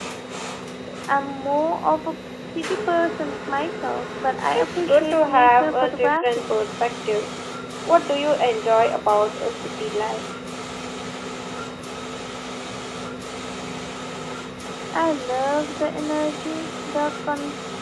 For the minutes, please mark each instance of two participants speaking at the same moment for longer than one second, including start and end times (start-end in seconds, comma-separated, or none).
4.6-6.6